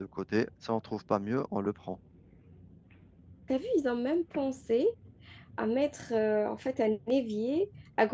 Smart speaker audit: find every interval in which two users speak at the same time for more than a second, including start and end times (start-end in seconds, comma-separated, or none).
none